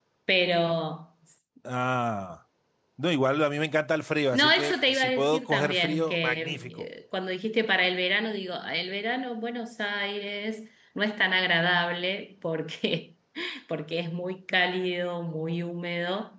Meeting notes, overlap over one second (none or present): present